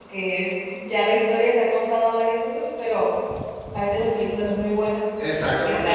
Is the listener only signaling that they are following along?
No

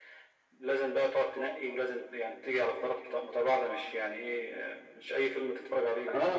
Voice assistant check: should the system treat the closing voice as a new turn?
Yes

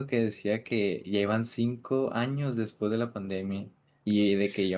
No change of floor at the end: Yes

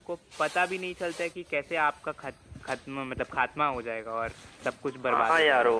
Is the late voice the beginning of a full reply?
Yes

